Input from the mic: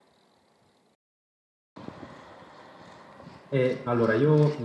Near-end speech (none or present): present